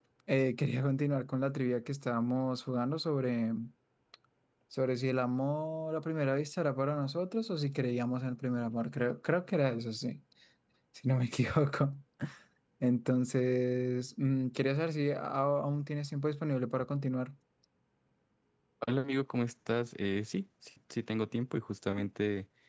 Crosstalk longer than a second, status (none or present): none